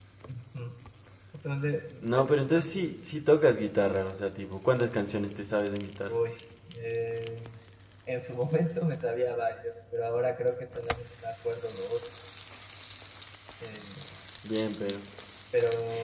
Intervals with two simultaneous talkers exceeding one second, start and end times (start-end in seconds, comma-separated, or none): none